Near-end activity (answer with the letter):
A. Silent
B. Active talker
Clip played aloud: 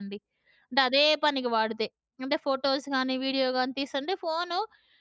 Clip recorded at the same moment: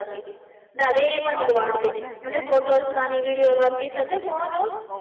B